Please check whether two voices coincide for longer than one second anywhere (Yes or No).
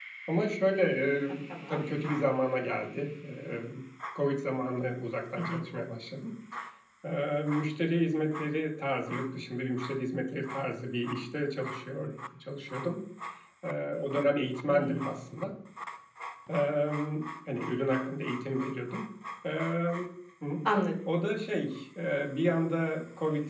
No